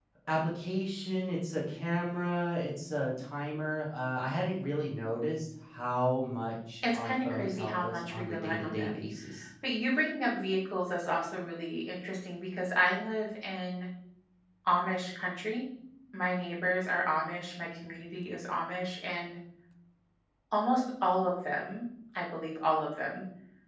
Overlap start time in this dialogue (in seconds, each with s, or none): 6.8 s